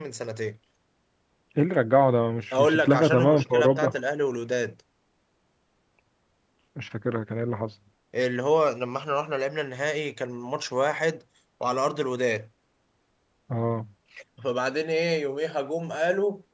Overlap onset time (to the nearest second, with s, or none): 3 s